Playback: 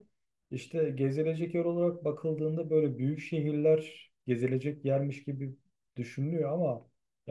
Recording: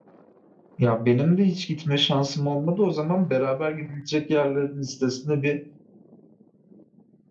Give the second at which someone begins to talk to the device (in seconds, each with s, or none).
0.8 s